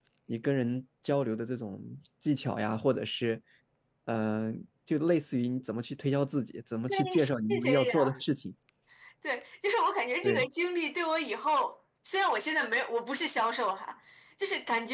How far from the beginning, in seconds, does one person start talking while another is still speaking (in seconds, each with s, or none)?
6.9 s